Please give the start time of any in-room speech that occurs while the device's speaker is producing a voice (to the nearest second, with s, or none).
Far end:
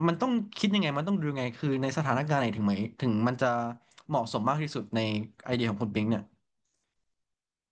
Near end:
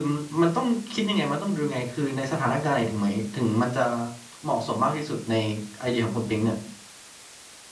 none